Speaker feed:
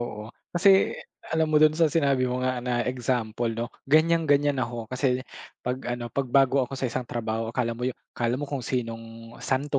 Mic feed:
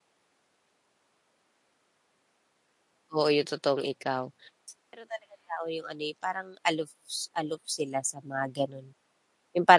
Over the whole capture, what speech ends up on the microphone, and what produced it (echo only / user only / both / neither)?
user only